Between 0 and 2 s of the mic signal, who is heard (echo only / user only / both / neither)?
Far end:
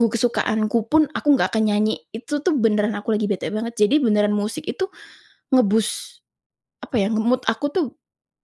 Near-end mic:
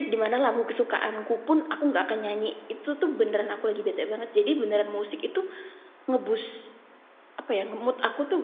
echo only